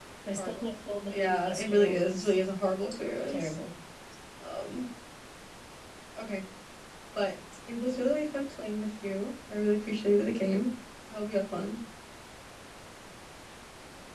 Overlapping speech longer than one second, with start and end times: 1.1-2.4

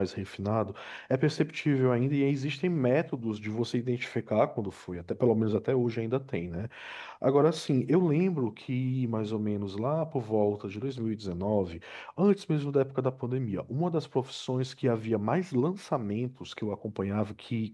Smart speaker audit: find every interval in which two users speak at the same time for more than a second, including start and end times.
none

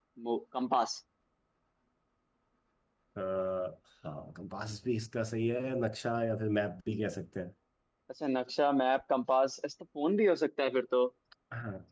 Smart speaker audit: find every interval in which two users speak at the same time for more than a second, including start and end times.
none

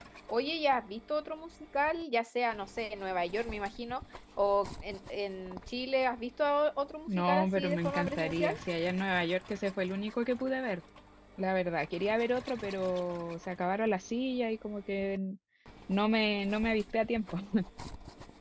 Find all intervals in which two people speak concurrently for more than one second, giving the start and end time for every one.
7.1-8.5

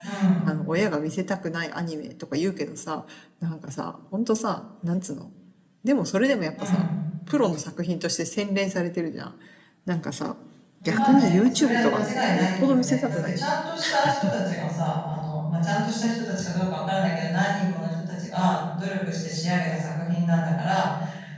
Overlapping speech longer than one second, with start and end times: 10.8-13.4

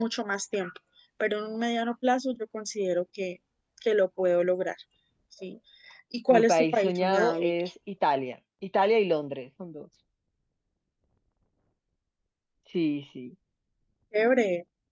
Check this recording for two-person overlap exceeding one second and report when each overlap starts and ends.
6.3-7.5

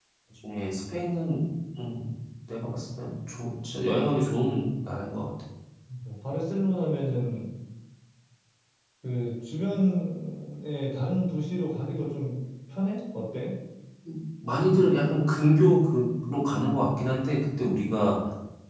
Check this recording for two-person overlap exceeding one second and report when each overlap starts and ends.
none

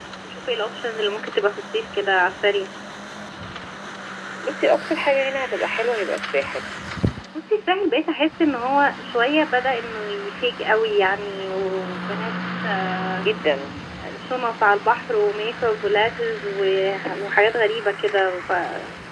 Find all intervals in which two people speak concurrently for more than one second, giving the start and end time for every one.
none

